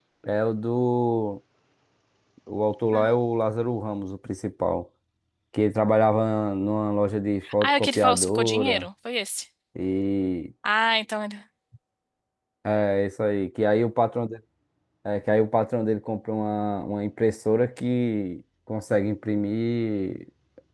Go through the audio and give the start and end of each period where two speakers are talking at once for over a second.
7.6-8.9

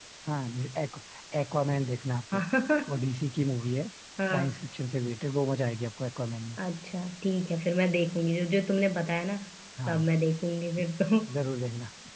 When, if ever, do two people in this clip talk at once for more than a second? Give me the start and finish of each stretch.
none

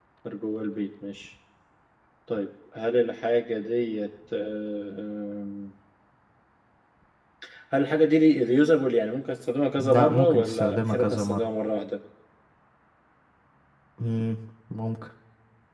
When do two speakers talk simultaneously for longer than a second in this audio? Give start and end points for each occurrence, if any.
9.8-11.4

